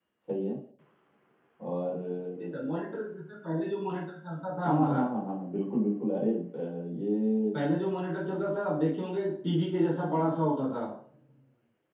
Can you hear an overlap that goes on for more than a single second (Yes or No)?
No